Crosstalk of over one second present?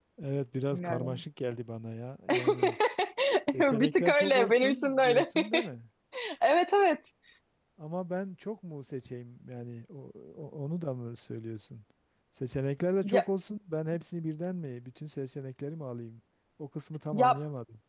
Yes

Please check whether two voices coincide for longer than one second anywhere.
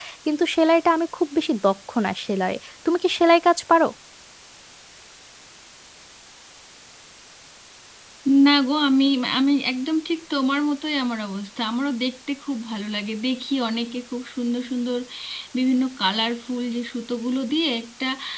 No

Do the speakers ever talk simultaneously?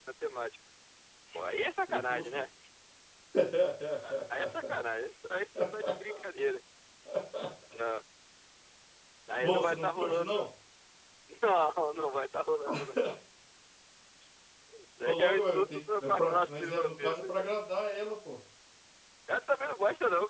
Yes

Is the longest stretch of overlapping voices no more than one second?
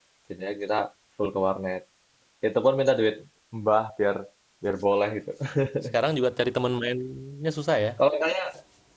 Yes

